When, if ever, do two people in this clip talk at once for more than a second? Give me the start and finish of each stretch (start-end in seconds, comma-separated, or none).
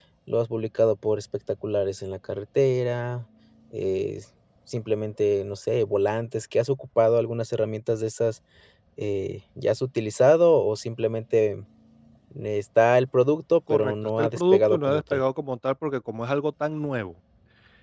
13.7-15.2